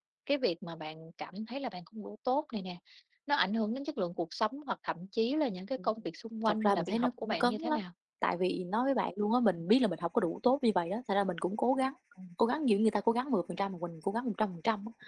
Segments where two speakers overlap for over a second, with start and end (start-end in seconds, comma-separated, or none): 6.5-7.8